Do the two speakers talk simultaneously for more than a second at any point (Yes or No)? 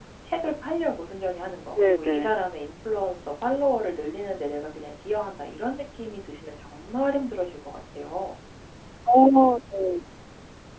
No